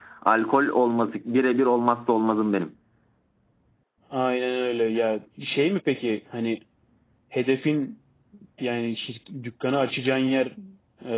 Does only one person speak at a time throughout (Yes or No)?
Yes